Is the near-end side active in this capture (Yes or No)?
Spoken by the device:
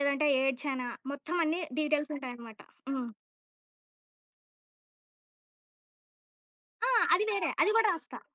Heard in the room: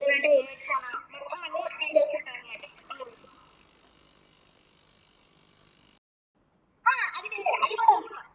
No